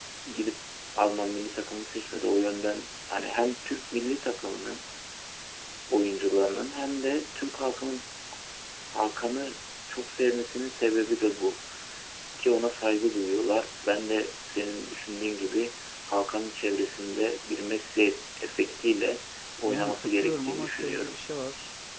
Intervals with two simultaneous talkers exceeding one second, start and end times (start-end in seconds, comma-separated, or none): 19.7-21.2